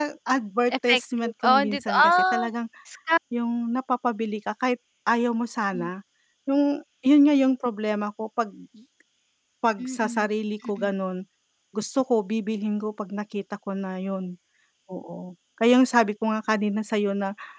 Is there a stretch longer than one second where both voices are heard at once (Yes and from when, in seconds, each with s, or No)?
Yes, from 0.7 s